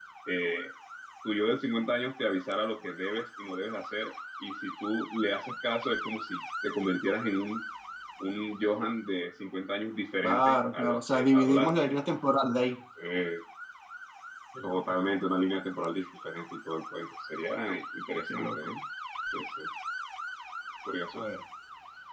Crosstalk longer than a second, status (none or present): present